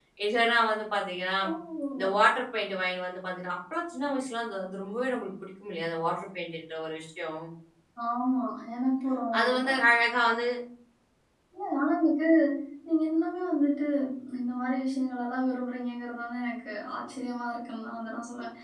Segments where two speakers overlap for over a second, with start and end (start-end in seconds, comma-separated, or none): none